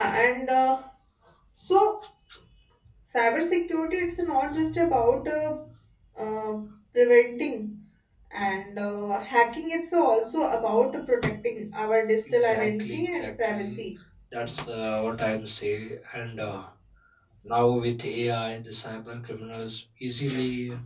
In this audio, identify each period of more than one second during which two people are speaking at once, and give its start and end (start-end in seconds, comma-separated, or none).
12.3-13.8